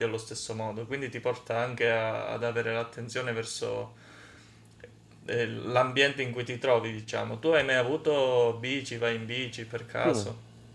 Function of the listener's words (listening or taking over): taking over